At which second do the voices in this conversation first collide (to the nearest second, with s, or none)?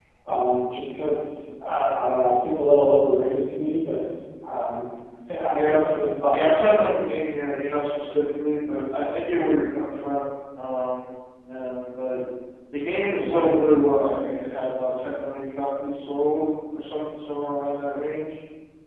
6 s